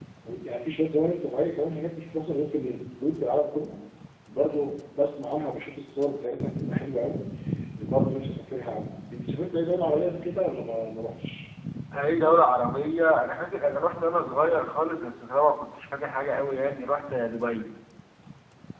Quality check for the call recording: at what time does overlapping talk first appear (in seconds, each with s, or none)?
none